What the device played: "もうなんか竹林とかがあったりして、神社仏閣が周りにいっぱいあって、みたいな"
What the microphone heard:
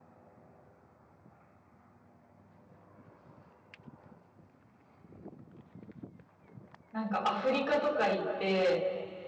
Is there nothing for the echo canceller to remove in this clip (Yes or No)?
Yes